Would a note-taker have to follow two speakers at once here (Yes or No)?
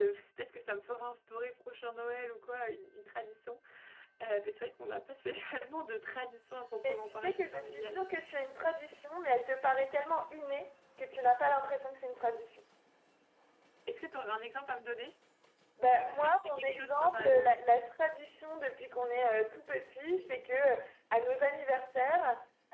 Yes